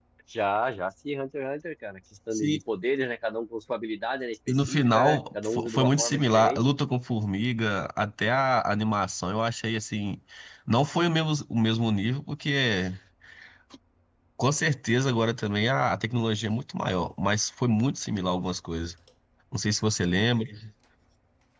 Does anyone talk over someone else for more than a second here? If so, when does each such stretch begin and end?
4.5-6.7

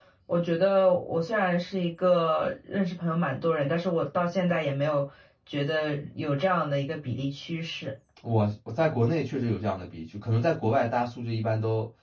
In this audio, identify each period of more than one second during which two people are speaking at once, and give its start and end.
none

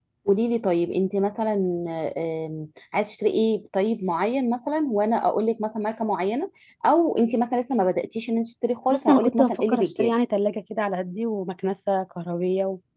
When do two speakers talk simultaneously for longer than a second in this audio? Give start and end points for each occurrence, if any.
8.9-10.1

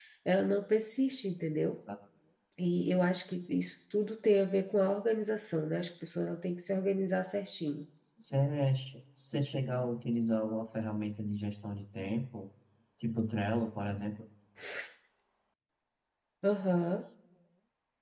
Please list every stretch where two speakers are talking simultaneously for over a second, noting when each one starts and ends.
none

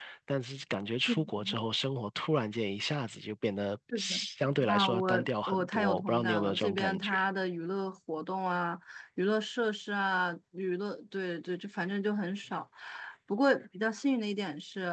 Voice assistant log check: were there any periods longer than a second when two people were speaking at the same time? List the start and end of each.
4.7-7.1

